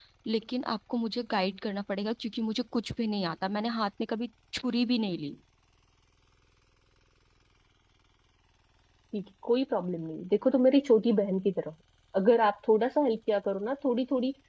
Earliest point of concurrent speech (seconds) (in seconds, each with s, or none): none